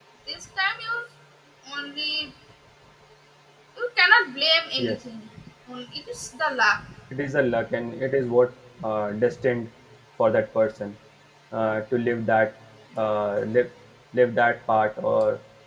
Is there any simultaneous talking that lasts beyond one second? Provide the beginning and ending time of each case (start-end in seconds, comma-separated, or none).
none